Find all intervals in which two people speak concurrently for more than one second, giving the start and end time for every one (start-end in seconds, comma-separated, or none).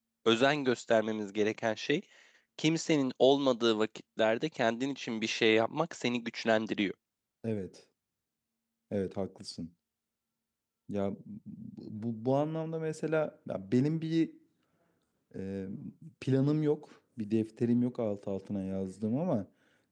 none